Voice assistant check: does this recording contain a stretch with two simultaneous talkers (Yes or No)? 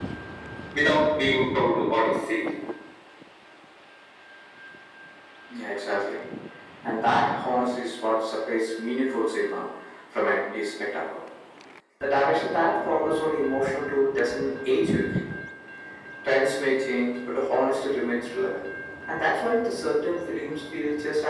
No